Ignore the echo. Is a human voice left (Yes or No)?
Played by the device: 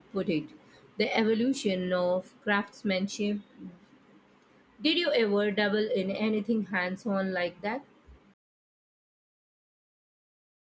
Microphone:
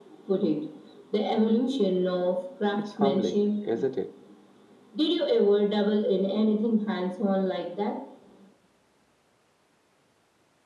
Yes